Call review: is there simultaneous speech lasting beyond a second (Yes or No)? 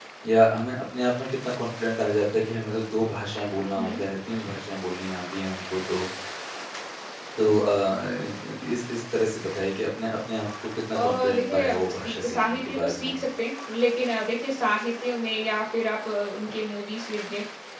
Yes